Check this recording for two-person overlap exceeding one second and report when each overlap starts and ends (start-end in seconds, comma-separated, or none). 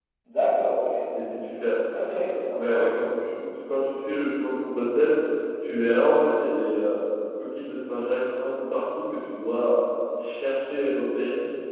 none